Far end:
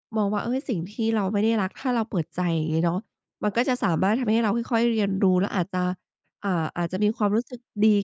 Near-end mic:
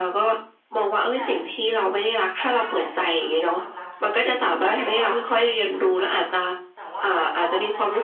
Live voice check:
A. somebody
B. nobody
A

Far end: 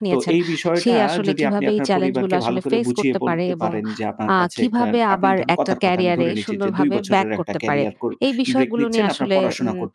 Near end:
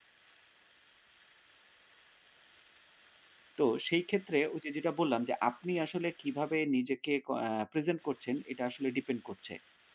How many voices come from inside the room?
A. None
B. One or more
B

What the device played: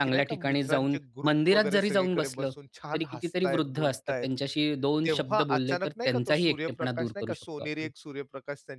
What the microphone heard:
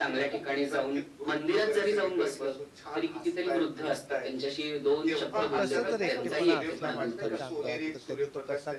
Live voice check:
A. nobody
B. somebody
B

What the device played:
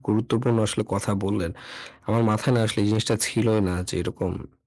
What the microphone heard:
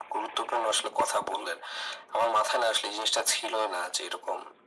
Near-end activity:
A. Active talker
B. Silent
B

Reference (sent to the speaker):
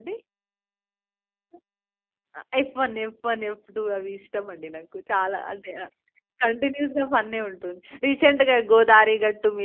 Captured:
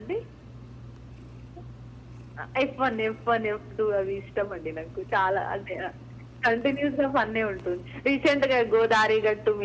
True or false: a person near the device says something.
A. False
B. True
A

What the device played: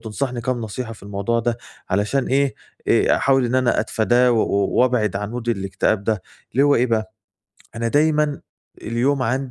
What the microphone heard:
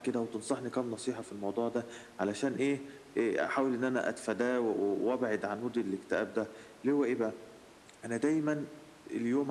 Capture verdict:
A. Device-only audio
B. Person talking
A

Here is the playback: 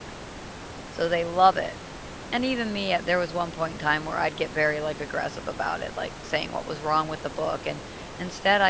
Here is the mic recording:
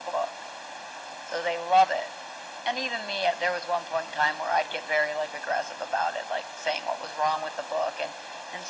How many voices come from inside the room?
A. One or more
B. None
B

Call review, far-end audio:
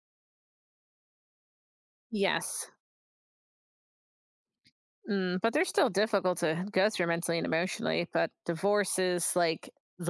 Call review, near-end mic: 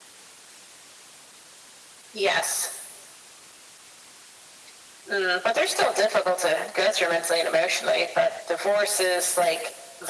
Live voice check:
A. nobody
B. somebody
A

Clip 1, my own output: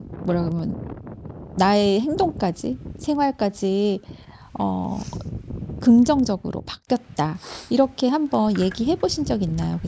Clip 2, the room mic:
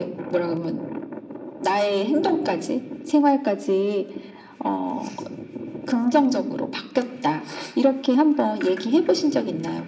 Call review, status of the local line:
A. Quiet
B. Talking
A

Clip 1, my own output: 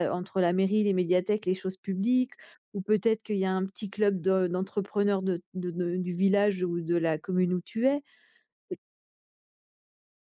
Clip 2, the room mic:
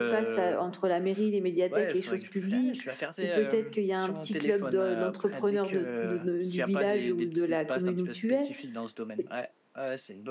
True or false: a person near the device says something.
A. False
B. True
B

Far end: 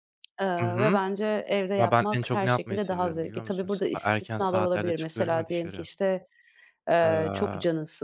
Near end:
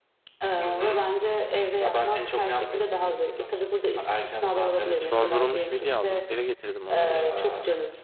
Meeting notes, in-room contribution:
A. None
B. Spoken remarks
B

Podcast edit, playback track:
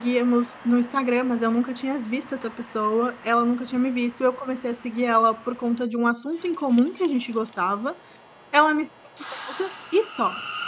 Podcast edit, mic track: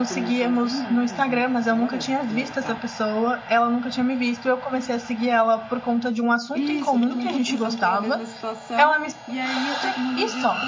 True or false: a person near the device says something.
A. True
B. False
A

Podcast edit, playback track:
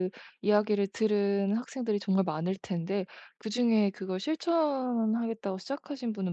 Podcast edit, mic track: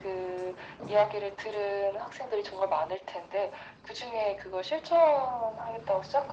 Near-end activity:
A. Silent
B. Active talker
A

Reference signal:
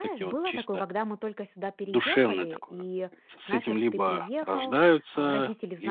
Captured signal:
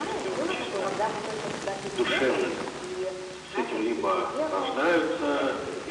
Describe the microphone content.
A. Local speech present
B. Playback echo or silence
B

